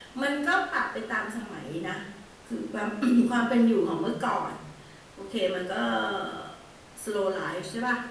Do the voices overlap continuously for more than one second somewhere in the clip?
No

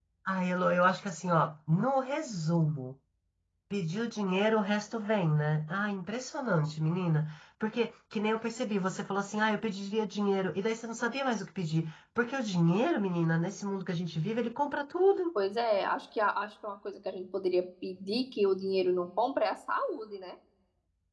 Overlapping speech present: No

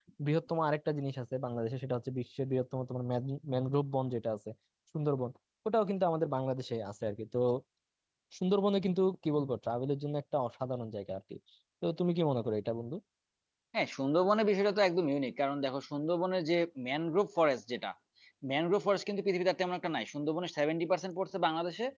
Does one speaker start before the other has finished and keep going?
No

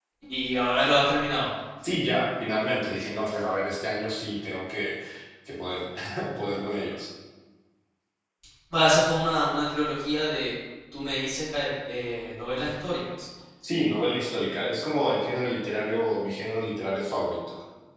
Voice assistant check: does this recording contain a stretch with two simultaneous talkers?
No

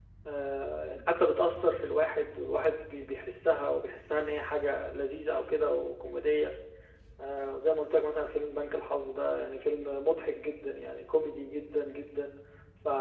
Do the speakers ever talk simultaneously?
No

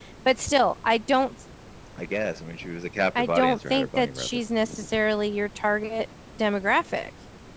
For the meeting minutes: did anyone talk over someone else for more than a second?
Yes, from 3.1 s

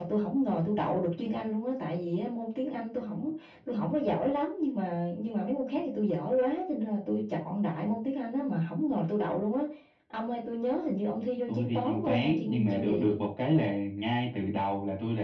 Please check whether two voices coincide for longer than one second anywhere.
Yes, from 11.5 s

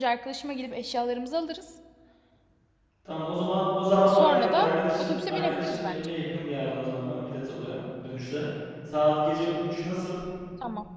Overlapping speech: Yes, from 4.1 s

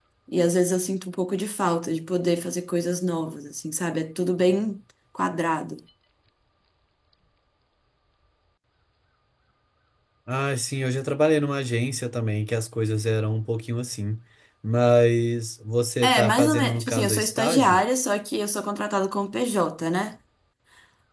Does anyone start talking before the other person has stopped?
Yes, from 16.0 s

